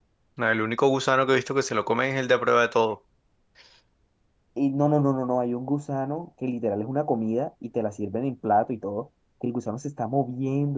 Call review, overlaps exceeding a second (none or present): none